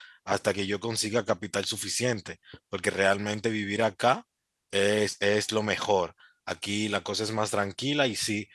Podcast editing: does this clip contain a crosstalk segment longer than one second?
No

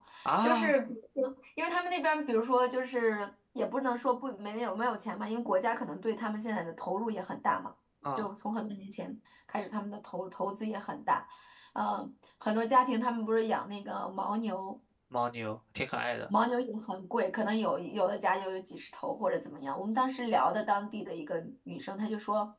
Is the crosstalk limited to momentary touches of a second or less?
Yes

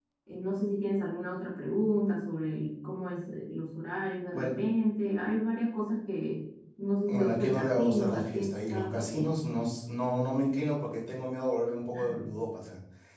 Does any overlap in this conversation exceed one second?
Yes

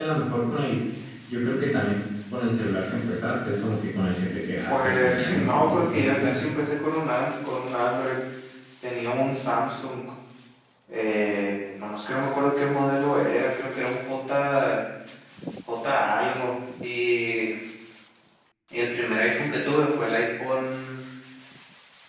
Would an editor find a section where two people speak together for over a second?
Yes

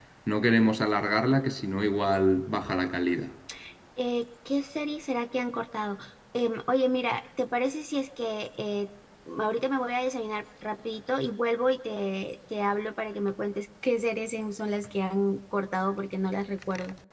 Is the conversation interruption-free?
Yes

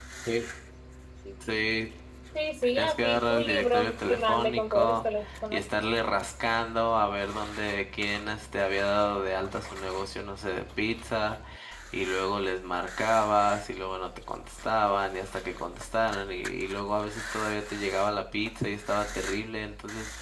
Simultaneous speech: Yes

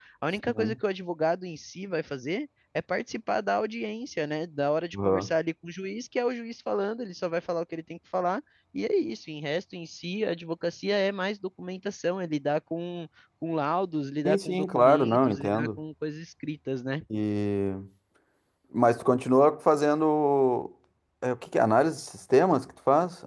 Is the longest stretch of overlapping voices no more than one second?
No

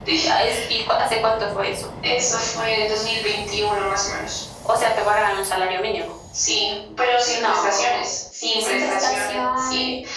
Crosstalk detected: Yes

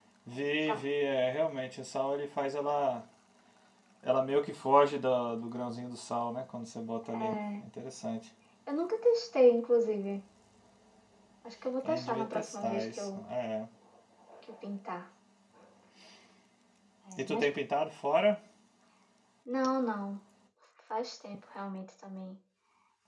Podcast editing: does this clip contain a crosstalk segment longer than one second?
Yes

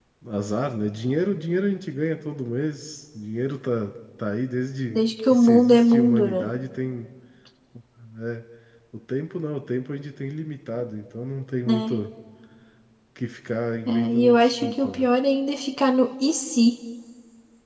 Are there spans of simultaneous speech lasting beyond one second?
Yes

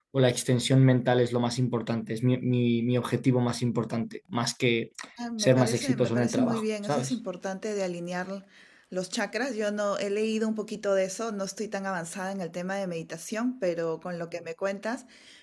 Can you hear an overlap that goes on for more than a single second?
Yes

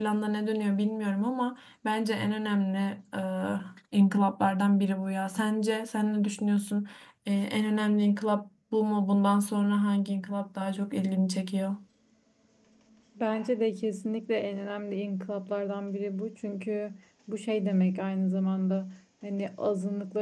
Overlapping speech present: No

